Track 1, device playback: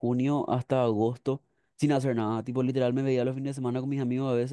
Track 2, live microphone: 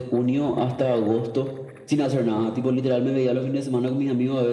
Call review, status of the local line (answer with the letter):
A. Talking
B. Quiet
B